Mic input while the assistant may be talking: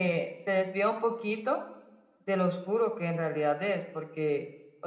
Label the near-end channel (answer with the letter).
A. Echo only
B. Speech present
A